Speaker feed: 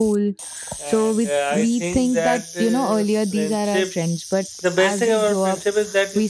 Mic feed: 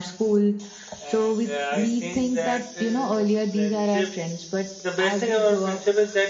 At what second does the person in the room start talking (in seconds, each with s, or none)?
none